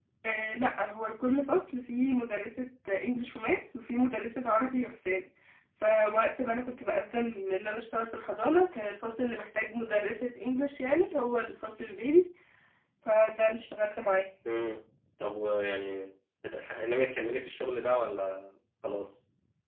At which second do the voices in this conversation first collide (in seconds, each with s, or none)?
none